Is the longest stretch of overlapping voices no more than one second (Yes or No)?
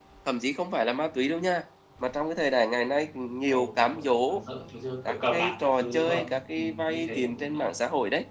No